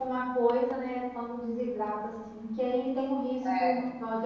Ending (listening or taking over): listening